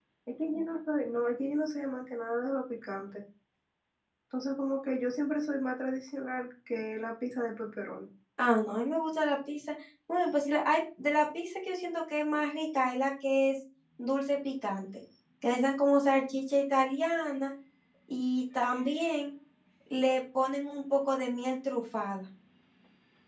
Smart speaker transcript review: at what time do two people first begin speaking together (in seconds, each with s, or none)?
none